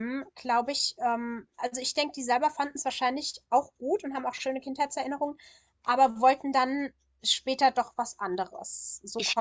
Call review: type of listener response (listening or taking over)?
taking over